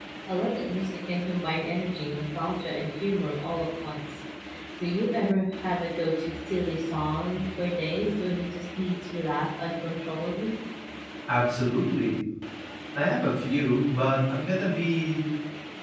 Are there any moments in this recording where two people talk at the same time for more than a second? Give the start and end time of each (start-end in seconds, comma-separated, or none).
none